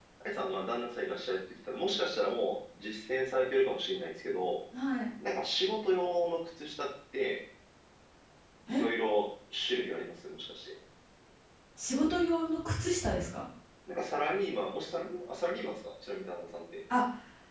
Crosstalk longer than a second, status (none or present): none